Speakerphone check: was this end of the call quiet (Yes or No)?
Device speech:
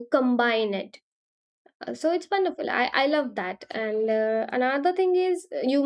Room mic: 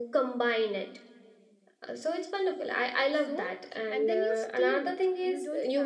No